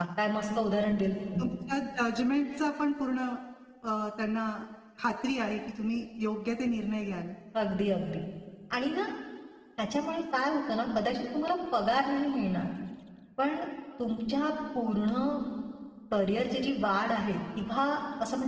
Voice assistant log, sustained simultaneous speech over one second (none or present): none